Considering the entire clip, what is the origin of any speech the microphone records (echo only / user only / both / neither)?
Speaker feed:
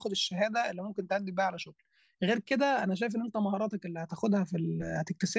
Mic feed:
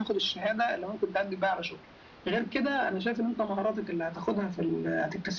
echo only